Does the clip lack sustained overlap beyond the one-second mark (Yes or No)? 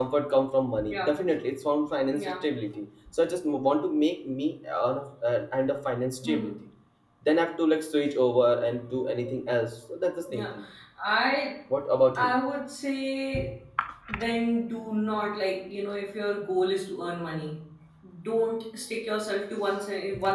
Yes